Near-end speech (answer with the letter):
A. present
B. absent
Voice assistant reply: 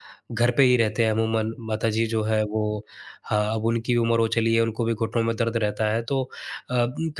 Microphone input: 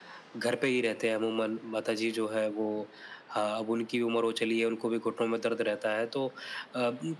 B